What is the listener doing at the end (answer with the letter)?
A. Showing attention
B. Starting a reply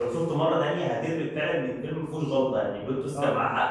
B